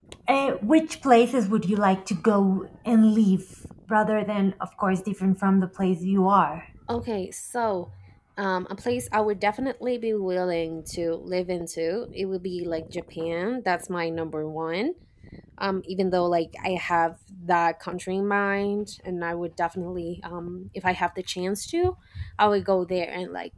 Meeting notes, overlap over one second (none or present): none